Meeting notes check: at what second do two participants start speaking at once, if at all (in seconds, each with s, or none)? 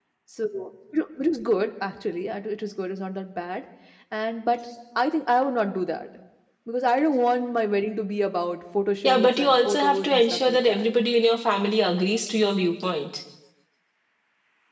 9.0 s